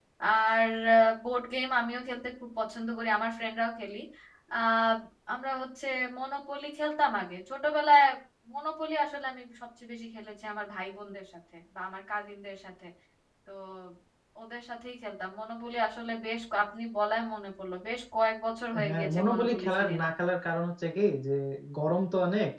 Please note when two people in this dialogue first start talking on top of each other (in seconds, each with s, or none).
18.7 s